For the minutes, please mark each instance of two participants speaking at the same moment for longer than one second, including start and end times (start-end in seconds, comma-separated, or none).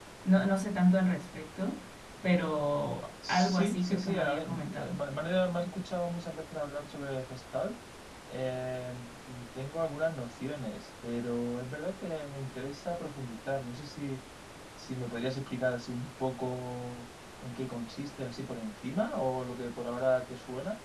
3.3-5.0